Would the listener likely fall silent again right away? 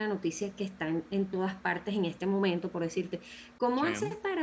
Yes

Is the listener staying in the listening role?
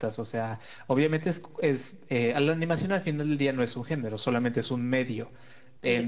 Yes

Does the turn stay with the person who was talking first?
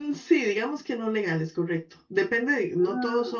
Yes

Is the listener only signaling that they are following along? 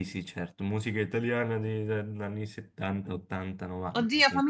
No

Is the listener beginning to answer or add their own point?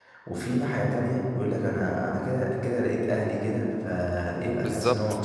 Yes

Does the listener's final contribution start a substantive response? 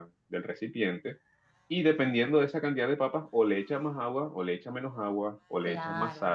No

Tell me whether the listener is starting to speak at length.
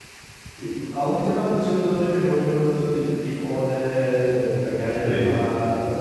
No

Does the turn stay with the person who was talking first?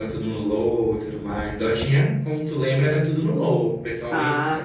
Yes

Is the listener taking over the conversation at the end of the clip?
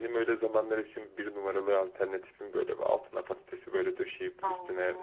No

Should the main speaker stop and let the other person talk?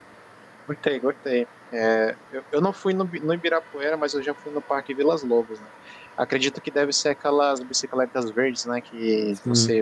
No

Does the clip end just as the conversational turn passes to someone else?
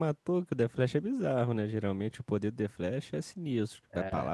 No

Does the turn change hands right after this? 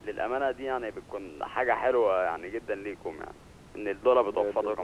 Yes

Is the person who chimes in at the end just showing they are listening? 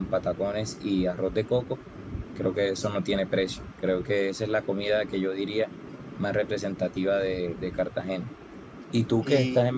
Yes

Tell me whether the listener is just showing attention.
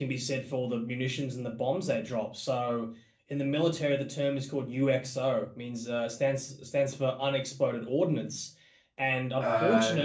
Yes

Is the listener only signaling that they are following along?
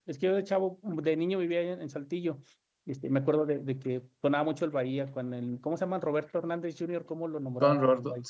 No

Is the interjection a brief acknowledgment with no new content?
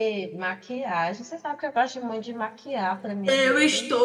No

